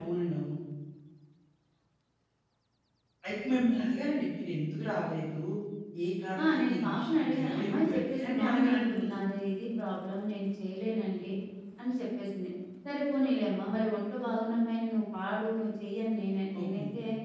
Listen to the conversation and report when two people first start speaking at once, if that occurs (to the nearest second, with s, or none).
6 s